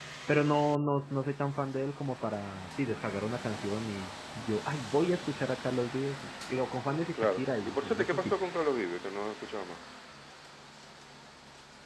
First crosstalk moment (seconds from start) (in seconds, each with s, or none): 7.1 s